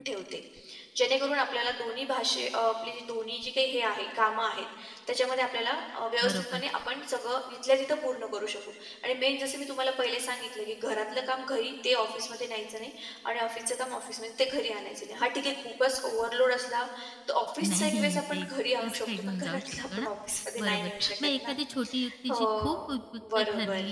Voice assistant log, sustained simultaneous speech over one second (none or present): present